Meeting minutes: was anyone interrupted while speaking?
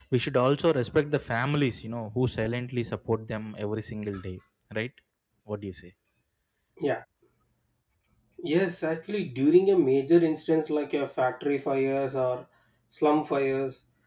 No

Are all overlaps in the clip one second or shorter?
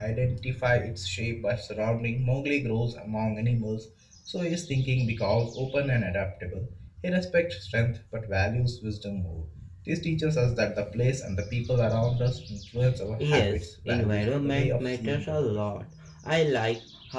No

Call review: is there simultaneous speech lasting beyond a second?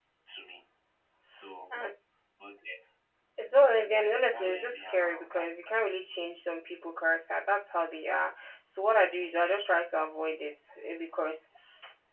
Yes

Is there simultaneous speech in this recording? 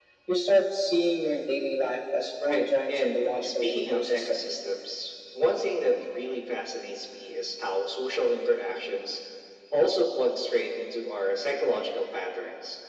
Yes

